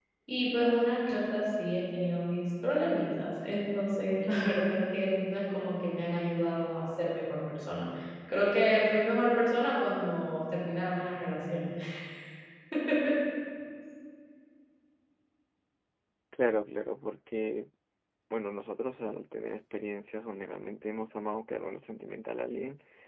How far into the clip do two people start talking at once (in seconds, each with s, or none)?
none